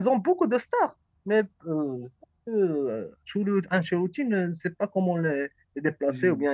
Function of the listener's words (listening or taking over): listening